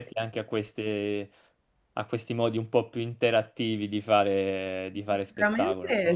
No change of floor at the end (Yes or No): No